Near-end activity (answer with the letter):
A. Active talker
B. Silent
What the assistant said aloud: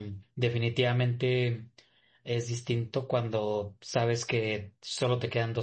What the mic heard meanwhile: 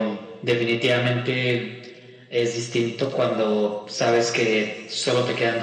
B